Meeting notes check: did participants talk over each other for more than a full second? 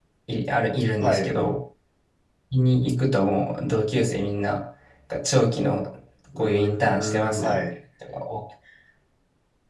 Yes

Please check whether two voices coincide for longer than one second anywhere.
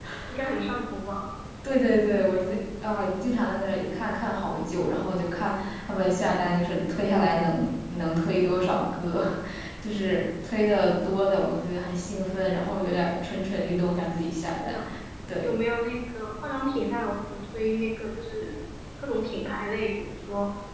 No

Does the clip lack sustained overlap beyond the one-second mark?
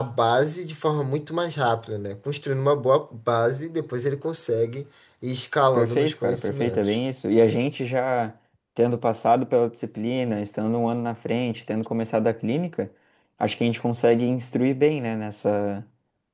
No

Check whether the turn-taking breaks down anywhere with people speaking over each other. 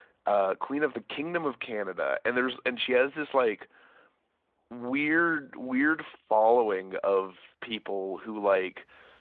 No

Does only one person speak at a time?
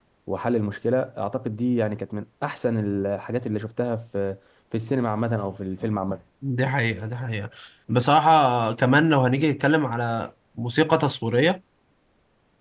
Yes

